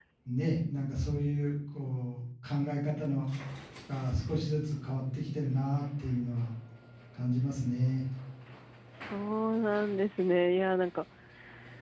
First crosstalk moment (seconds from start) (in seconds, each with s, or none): none